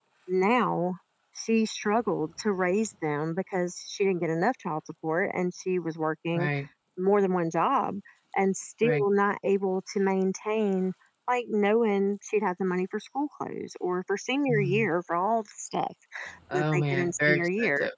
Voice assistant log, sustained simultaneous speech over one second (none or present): present